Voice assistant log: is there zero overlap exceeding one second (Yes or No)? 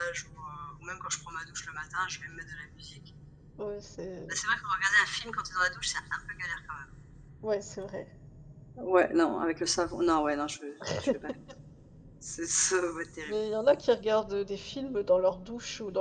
Yes